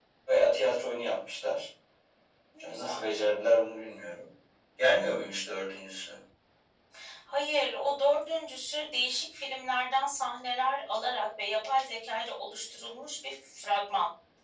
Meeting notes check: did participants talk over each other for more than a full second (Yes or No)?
No